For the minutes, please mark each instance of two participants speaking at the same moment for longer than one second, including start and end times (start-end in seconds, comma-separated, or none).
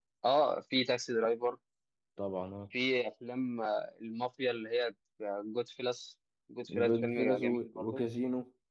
6.7-8.0